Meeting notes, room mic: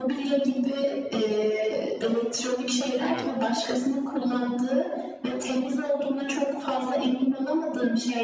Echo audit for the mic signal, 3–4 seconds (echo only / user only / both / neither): both